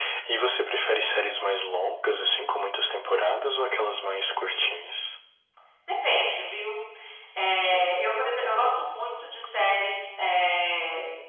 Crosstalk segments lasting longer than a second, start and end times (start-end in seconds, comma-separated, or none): none